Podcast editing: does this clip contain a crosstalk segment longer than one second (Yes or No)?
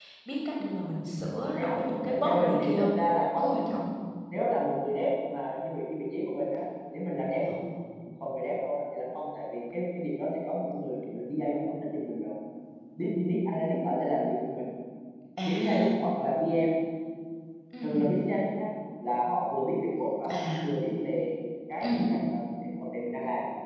Yes